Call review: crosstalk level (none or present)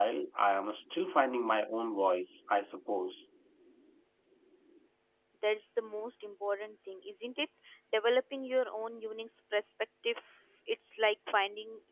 none